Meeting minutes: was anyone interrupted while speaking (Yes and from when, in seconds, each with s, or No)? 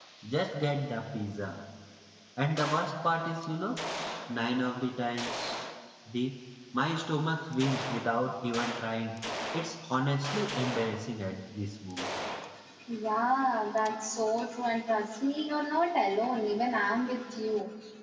No